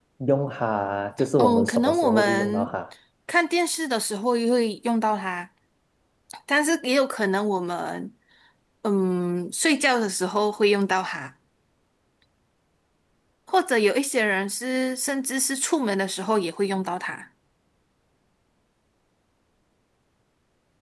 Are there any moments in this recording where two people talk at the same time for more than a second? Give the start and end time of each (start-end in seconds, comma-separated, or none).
1.4-2.7